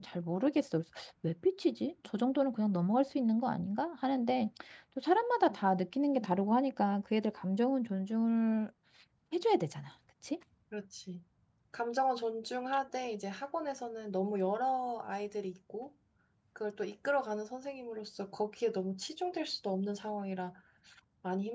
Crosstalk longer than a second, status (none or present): none